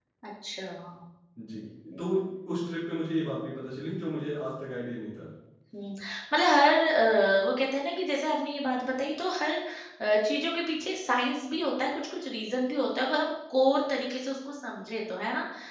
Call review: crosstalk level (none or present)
none